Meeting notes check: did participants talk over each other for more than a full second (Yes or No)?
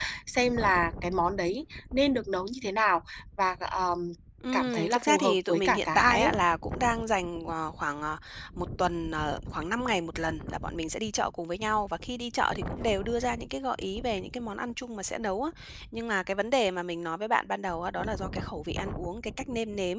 Yes